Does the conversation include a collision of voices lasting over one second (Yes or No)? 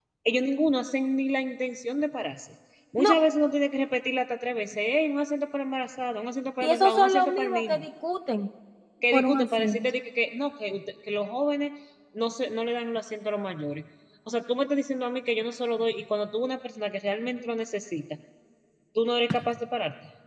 Yes